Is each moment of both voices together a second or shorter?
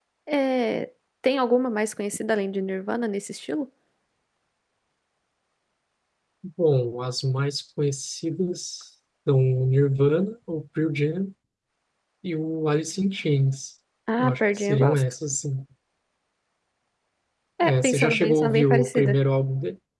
No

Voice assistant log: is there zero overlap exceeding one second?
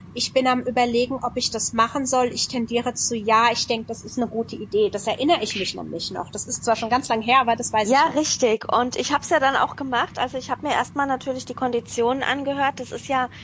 Yes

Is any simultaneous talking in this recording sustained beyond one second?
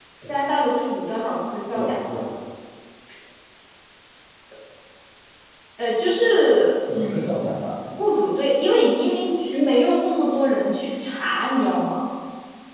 No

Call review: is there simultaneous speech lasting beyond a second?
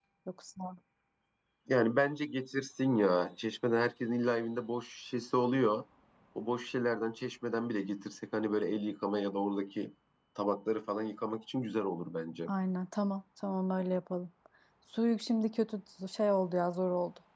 No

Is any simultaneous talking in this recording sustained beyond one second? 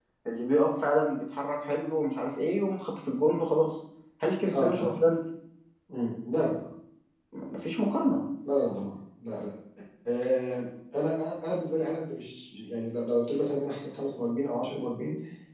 No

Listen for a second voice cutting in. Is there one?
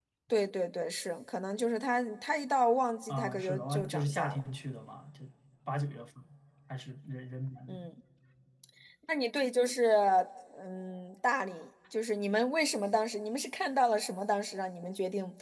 Yes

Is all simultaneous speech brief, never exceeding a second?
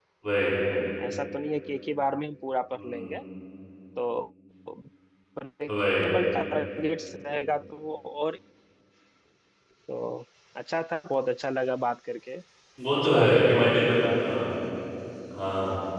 No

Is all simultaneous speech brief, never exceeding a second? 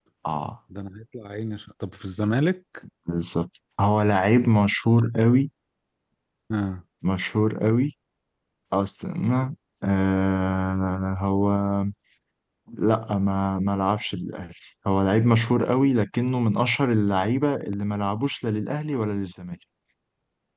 Yes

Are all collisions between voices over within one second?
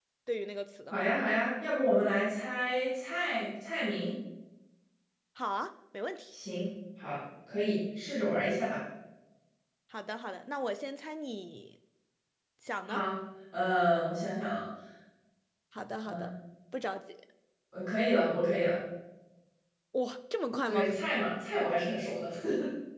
Yes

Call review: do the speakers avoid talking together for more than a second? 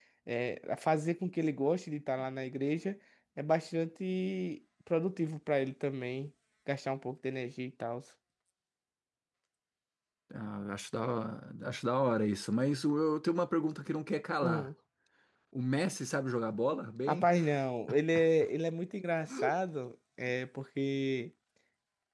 Yes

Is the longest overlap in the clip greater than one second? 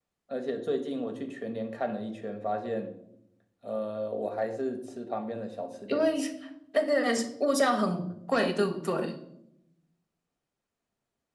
No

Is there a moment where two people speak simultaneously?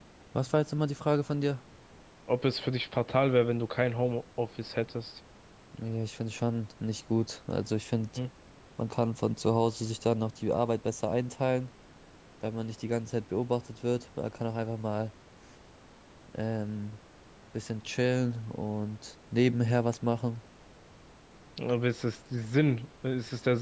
No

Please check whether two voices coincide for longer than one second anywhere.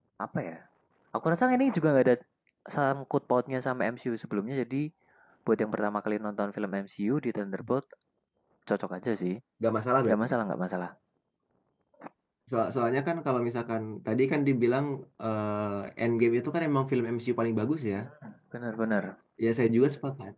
No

